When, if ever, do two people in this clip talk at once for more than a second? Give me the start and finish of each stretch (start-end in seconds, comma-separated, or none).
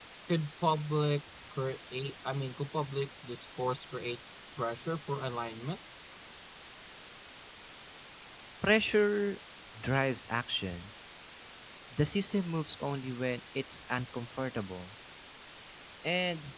none